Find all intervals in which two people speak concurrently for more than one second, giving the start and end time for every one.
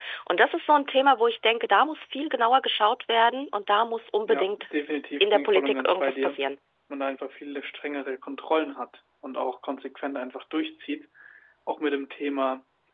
5.2-6.4

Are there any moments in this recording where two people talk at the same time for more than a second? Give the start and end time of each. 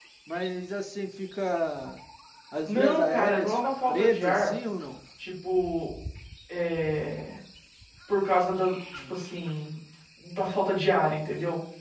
2.6-4.5

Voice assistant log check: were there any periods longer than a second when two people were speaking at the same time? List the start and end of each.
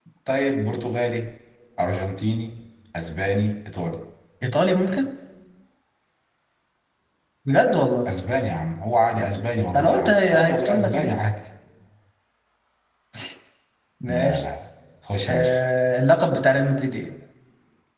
9.8-11.1

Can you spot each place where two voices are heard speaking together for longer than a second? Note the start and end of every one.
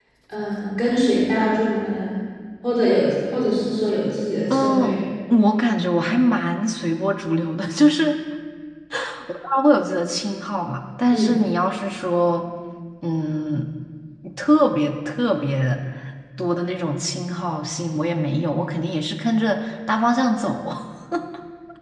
none

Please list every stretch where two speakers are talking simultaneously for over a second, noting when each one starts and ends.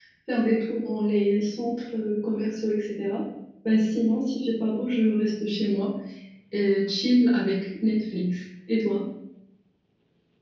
none

